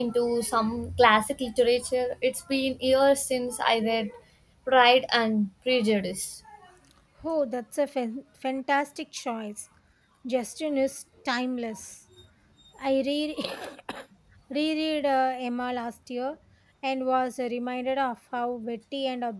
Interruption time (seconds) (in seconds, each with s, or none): none